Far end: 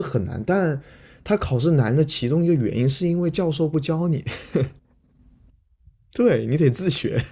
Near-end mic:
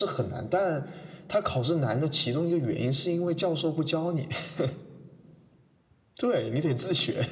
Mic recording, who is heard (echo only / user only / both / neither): echo only